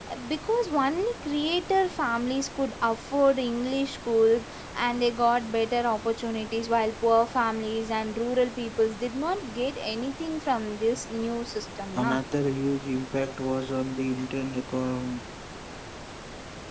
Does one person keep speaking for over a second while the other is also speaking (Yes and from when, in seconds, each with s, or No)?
No